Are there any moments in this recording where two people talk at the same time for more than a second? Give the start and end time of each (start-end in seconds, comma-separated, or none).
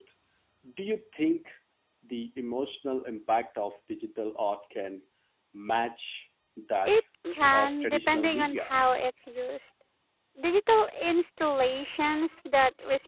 7.5-8.7